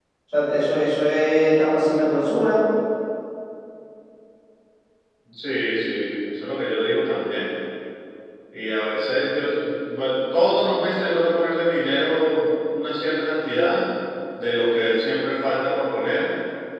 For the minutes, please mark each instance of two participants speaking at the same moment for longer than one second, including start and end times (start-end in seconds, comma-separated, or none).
none